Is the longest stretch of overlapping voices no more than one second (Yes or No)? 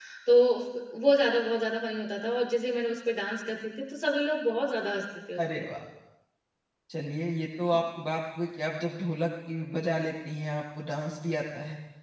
Yes